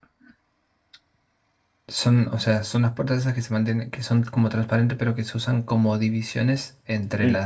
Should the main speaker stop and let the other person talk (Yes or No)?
No